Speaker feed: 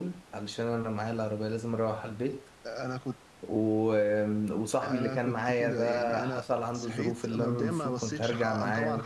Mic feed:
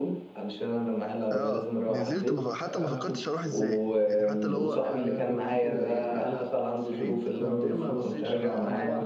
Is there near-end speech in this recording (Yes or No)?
Yes